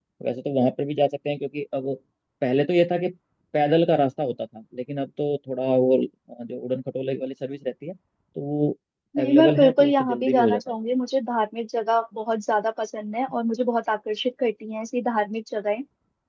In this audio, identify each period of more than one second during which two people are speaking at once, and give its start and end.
9.2-10.8

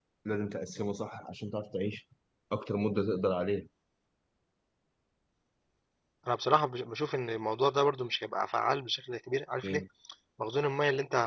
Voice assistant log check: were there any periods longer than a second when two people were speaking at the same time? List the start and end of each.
none

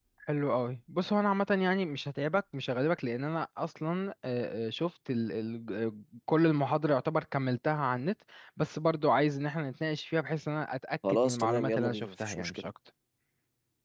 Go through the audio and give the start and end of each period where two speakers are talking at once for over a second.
11.1-12.7

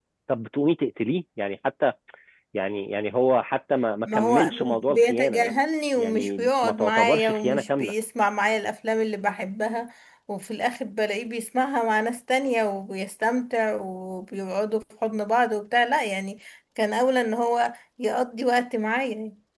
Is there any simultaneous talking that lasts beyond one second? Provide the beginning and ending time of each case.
4.1-5.5, 6.0-7.9

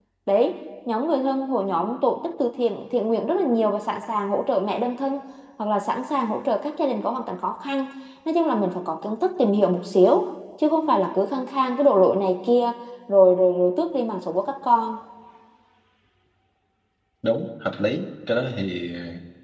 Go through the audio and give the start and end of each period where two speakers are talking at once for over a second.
none

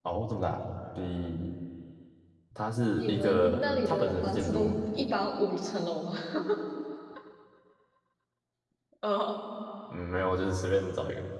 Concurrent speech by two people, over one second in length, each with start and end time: 3.0-4.7

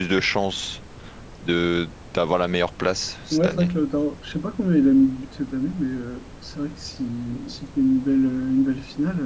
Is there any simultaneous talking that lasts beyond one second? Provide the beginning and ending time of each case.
none

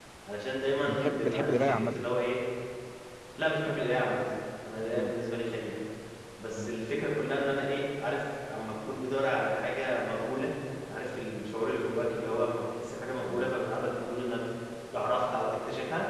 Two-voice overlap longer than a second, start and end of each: 0.9-2.1

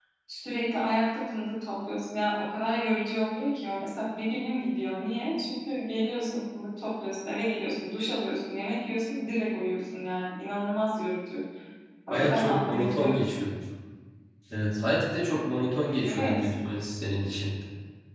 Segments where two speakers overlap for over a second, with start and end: 12.1-13.5

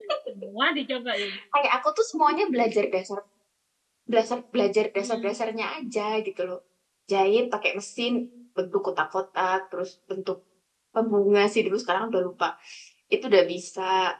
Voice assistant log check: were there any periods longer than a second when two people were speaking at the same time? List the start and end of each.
none

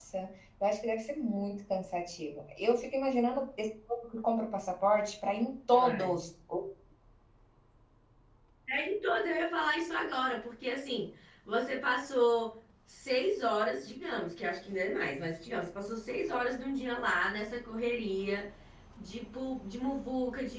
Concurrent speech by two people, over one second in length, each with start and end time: none

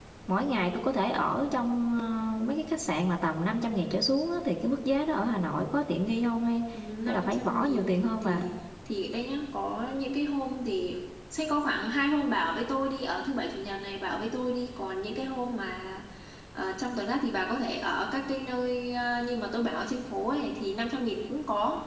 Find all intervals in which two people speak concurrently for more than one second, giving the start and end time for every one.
7.1-8.4

